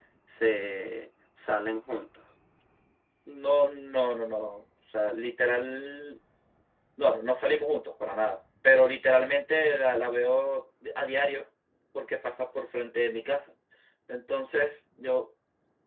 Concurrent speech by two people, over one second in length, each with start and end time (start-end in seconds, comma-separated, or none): none